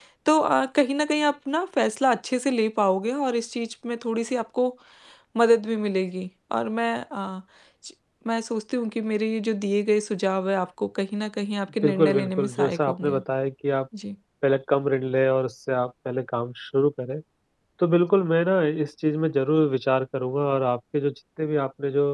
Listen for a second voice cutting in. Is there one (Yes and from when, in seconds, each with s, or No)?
Yes, from 11.8 s